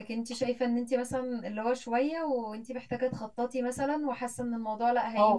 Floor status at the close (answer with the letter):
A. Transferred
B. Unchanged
A